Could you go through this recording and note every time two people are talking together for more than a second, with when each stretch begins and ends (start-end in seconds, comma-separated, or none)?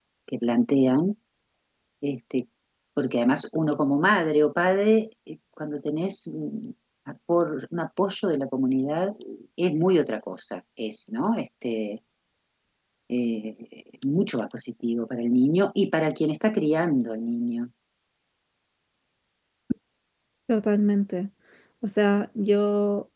none